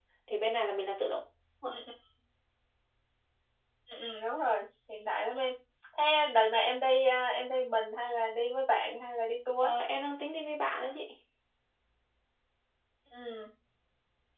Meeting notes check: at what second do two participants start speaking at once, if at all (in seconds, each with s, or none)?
none